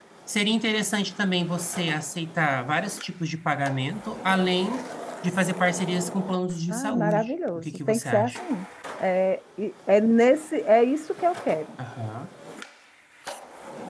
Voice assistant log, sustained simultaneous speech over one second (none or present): present